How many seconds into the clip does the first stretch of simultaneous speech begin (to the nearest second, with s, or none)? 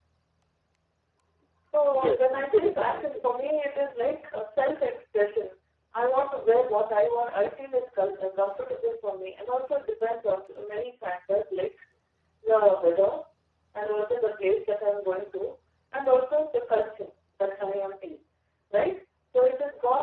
2 s